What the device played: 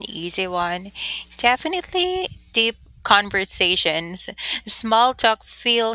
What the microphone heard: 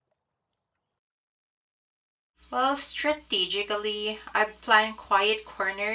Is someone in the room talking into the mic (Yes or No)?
Yes